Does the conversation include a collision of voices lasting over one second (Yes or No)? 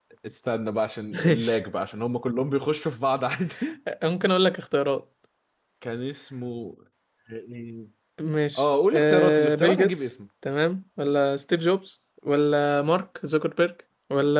Yes